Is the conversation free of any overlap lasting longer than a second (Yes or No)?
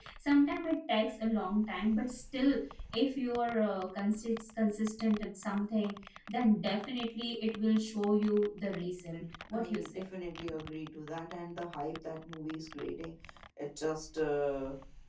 Yes